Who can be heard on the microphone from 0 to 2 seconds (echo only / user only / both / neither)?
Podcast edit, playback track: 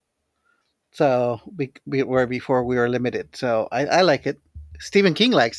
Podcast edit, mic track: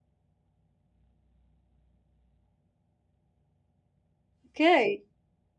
neither